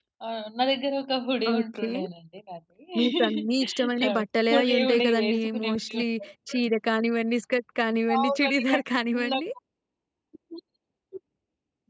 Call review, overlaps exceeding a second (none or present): present